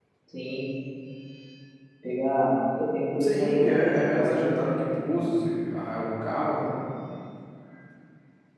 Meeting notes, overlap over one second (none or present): present